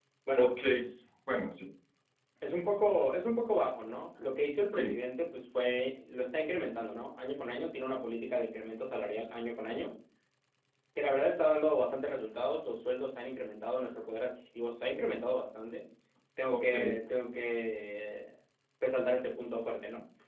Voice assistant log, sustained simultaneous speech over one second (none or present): none